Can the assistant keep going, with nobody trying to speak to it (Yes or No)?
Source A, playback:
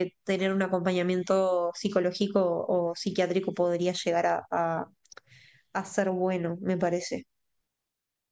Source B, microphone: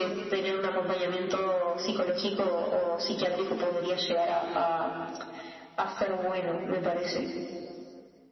Yes